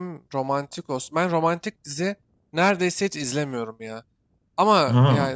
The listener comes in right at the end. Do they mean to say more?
No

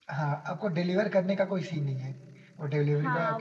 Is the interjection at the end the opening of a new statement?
Yes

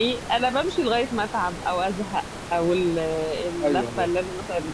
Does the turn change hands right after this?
No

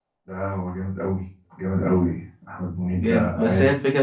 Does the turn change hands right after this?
Yes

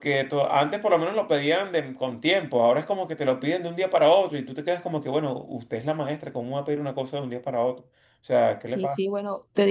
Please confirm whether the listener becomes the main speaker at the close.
Yes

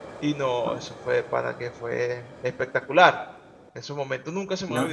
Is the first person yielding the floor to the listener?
Yes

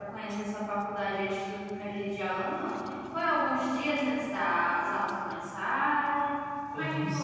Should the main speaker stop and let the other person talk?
Yes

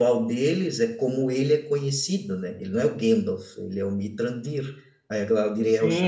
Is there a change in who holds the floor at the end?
Yes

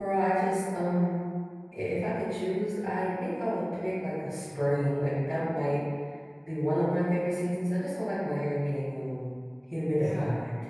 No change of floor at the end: No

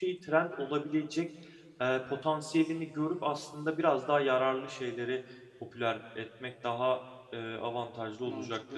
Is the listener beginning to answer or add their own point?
Yes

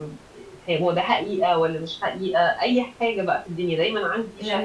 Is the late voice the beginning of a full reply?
Yes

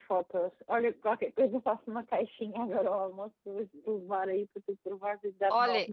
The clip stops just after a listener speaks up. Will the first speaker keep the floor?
No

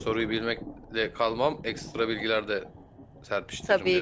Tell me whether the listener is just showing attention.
No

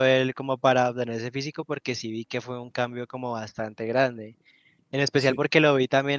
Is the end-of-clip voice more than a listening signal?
No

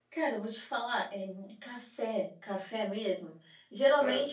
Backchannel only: Yes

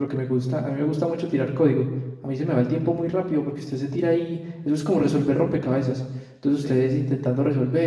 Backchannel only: Yes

